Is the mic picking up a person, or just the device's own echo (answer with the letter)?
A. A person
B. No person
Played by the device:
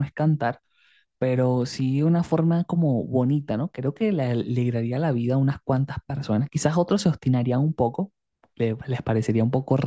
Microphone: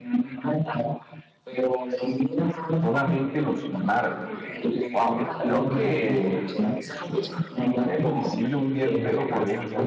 A